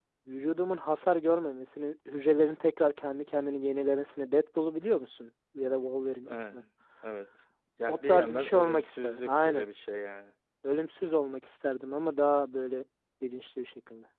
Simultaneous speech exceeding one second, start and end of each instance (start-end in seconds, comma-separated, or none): 7.9-9.7